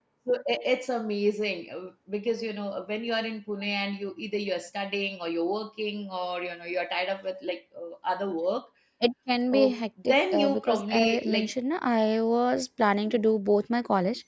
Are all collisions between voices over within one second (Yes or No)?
No